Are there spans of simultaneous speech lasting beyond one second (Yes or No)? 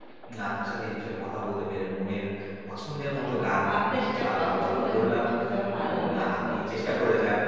Yes